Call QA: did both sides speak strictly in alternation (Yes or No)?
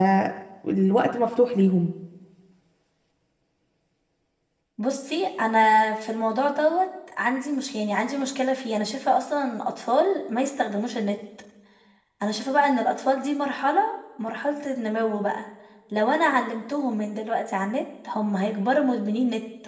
Yes